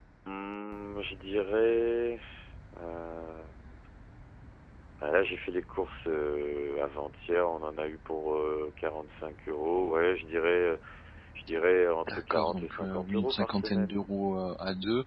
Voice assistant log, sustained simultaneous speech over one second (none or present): present